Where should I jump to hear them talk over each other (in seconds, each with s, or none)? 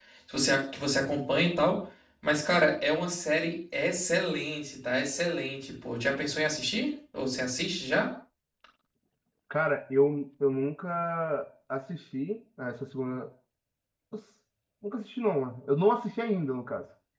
none